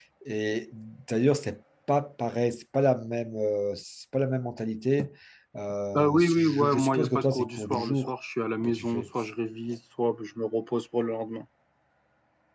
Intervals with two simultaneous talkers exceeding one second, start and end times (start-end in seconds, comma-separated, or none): 6.0-8.1